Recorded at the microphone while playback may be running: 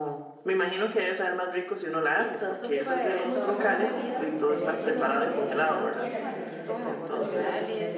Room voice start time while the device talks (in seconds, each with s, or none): 2.7 s